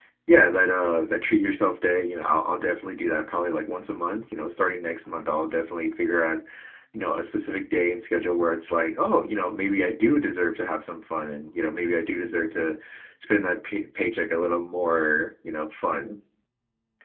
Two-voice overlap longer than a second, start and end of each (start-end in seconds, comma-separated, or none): none